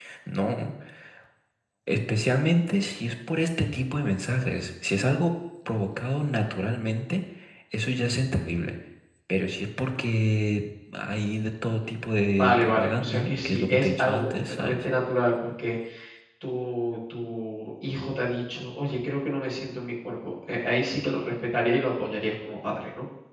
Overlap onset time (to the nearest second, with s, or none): 12 s